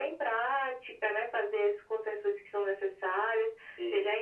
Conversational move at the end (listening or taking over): listening